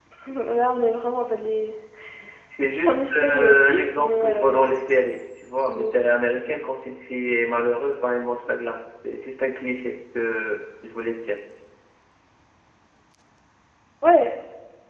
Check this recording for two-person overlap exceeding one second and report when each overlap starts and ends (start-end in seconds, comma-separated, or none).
2.9-4.7